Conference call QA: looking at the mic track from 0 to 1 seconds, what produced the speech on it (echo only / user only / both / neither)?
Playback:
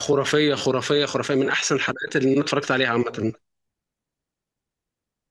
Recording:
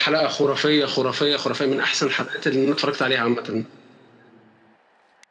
echo only